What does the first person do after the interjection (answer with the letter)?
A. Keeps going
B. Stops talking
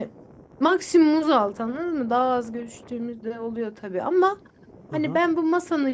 A